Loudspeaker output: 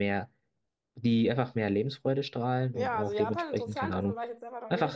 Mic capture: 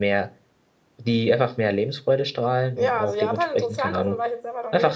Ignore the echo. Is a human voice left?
No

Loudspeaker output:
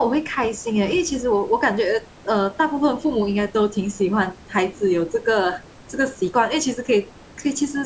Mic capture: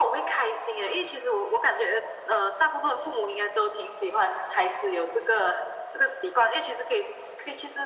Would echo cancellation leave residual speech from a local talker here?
No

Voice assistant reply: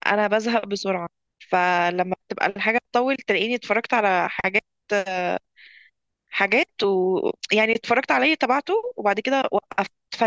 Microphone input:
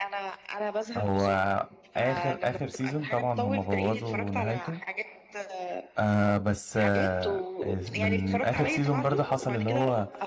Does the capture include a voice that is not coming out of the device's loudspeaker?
Yes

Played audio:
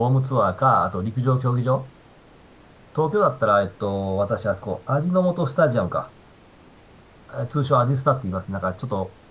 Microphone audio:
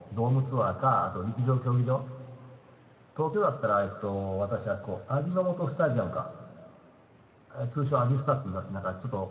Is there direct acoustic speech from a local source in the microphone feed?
No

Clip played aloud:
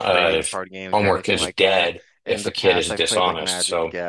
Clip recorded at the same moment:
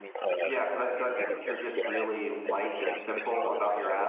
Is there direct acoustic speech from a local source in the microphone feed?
Yes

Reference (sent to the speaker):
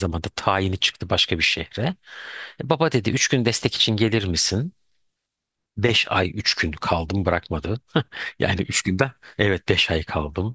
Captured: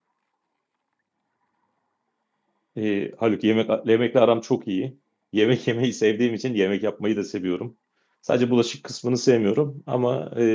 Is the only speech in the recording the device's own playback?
No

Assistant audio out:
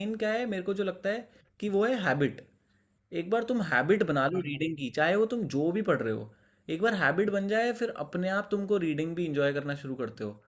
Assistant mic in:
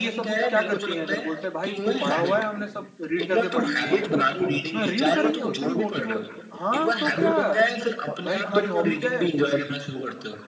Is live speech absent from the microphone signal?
No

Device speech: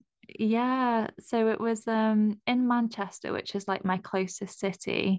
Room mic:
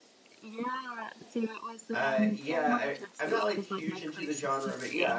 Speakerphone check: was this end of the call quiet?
No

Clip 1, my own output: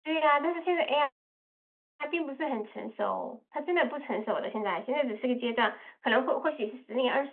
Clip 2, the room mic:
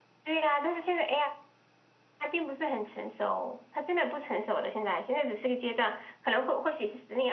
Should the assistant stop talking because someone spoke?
No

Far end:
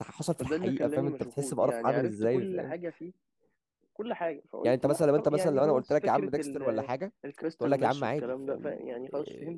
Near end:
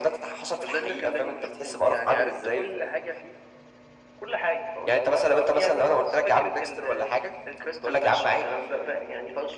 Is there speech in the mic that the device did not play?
No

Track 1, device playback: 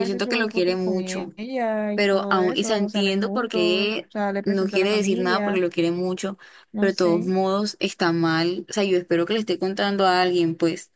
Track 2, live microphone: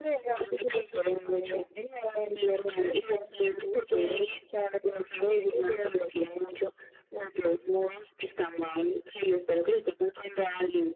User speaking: No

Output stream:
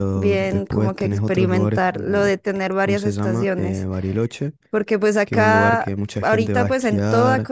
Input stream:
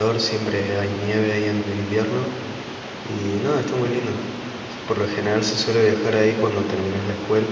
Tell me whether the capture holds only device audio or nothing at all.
No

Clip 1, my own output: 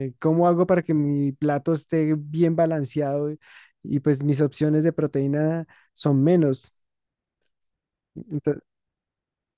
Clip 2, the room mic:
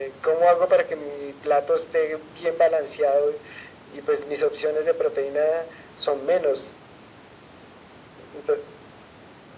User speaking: No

